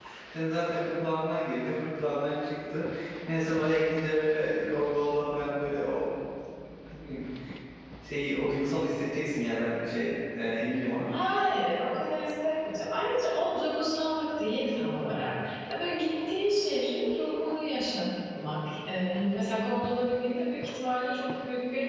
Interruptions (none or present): none